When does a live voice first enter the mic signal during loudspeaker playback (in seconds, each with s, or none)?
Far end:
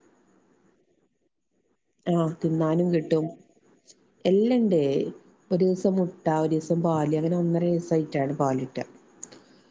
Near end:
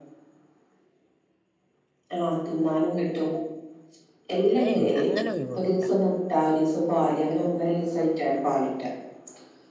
4.6 s